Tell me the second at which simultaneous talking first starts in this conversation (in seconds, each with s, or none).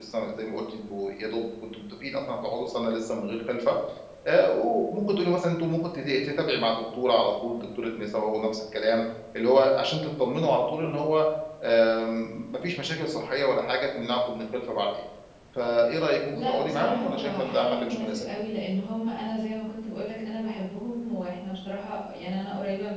16.3 s